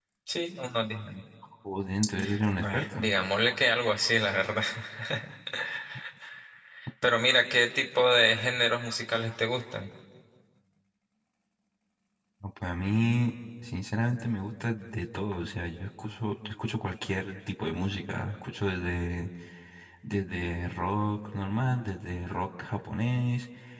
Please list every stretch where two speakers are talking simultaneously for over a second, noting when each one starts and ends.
none

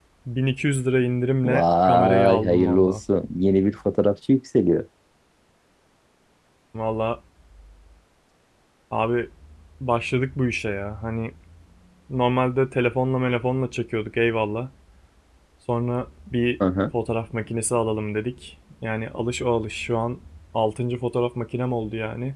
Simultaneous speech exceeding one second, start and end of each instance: 1.4-3.0

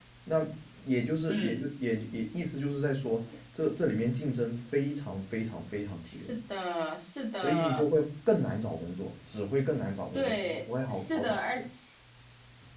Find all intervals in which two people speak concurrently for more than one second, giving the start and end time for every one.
10.1-11.6

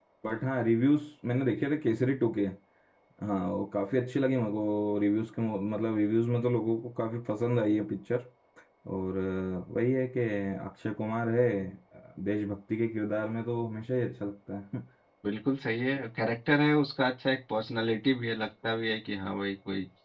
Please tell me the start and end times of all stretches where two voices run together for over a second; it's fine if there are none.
none

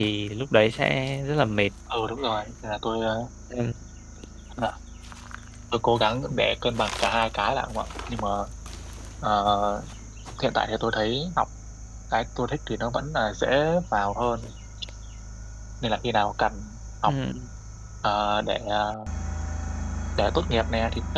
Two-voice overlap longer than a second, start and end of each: none

